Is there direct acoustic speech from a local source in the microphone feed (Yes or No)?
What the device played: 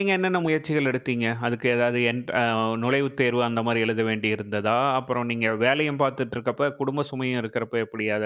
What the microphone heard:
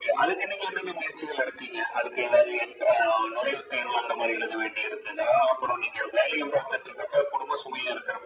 No